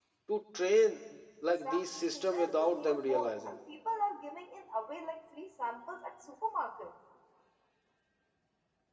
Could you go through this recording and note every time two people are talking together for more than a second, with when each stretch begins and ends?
1.6-3.5

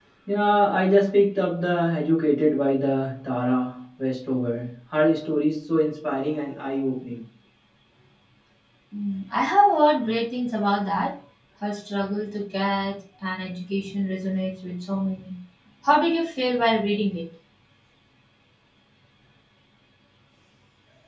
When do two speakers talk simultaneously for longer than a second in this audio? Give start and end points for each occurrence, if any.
none

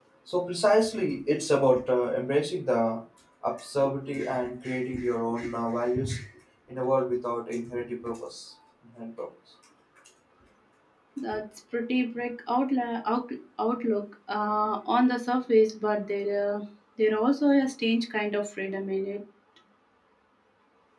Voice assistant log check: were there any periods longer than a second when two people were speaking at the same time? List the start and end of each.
none

